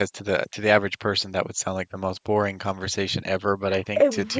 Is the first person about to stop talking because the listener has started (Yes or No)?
No